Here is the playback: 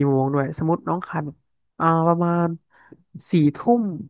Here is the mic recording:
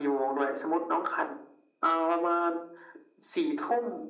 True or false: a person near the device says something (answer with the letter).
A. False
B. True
A